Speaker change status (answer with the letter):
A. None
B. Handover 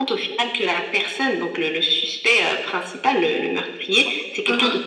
A